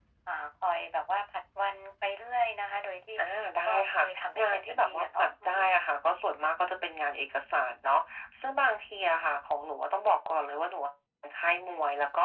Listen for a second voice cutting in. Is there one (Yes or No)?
Yes